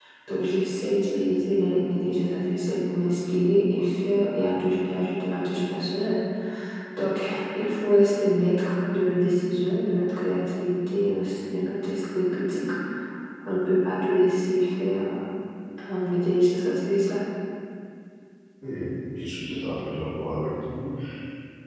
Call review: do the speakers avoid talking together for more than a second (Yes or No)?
Yes